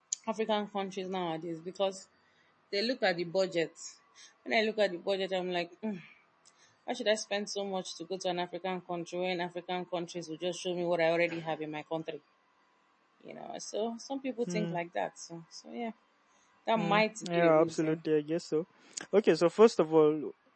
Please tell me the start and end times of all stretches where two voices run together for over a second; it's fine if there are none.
16.8-18.0

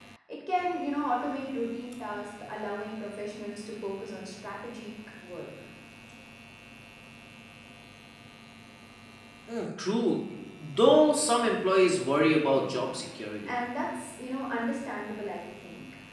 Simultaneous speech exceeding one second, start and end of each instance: none

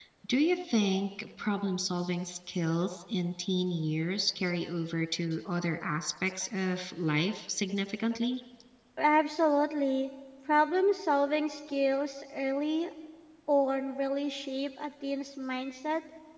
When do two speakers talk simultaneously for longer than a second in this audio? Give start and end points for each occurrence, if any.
none

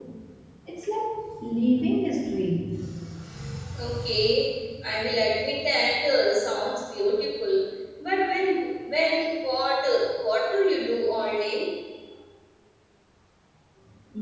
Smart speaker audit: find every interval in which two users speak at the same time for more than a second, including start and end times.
none

